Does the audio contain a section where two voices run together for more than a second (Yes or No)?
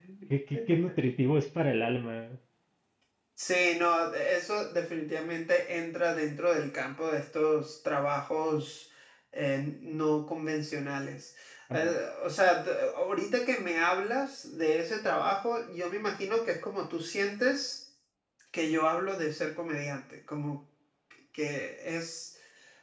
No